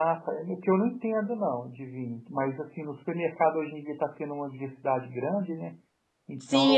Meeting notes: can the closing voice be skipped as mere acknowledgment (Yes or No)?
No